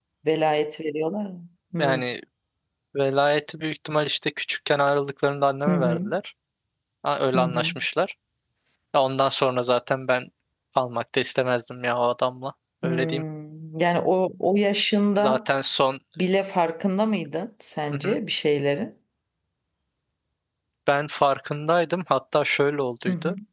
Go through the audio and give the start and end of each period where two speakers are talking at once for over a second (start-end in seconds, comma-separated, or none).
none